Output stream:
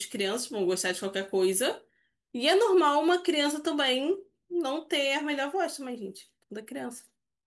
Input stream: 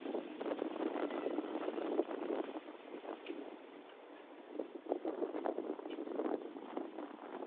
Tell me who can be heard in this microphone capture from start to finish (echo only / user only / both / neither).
neither